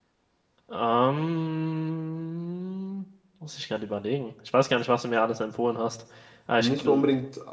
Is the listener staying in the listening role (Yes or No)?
No